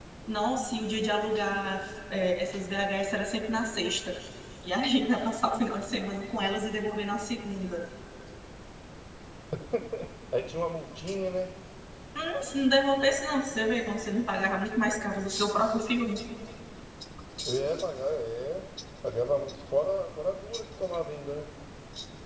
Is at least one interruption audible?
No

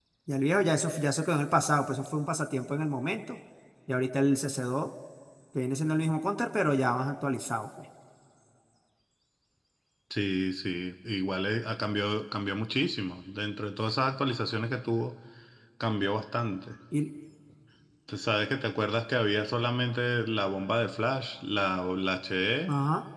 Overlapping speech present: No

